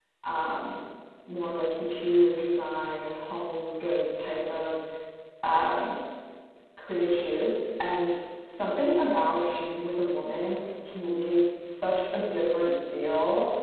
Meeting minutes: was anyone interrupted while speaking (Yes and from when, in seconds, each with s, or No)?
No